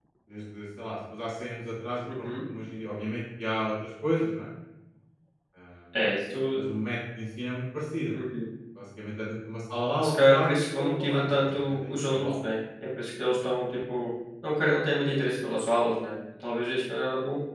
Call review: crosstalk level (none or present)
present